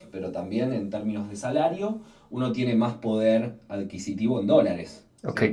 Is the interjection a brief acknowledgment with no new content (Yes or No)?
No